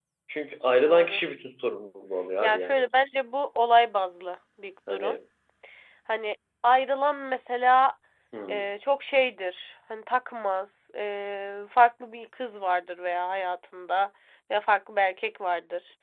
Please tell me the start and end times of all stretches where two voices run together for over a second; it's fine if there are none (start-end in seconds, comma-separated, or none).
none